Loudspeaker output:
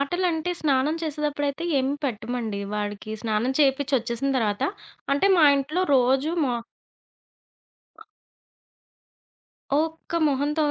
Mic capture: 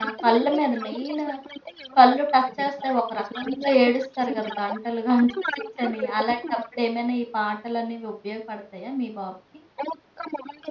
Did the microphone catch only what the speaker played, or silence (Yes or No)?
No